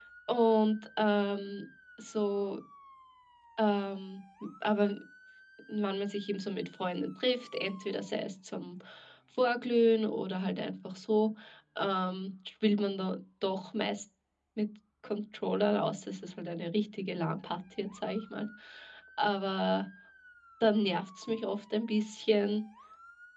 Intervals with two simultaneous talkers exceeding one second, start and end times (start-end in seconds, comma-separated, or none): none